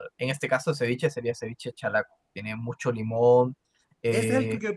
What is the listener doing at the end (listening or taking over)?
taking over